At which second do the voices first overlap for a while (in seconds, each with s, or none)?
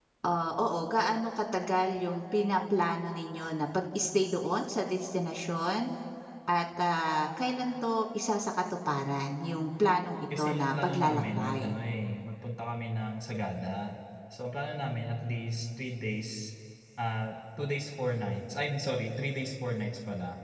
10.3 s